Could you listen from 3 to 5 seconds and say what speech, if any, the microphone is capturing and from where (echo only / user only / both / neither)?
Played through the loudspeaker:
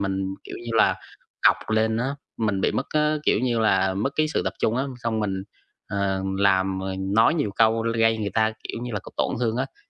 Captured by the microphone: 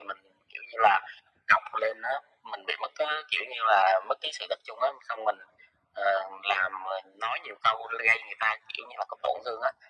echo only